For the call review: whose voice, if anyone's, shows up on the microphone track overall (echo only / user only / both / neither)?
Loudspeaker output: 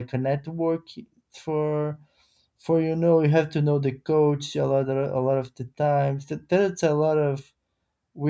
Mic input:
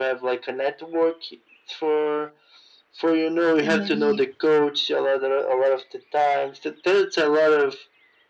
both